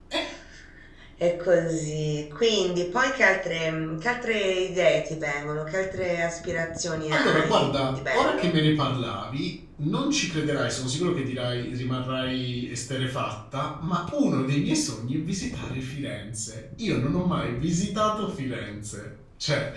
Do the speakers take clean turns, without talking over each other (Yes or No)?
No